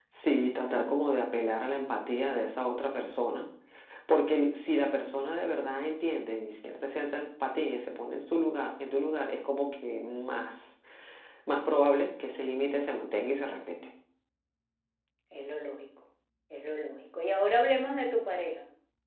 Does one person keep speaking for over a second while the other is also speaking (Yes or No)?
No